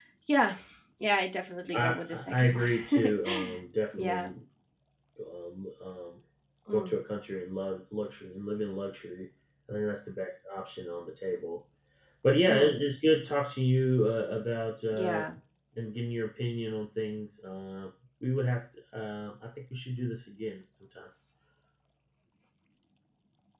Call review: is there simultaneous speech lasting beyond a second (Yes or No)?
Yes